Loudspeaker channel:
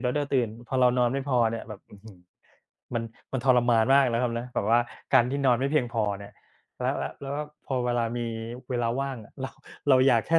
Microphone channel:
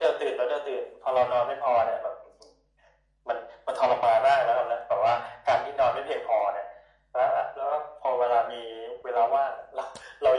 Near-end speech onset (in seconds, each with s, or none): none